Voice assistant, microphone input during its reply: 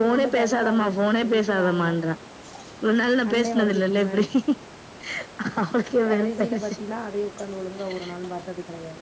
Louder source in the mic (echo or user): echo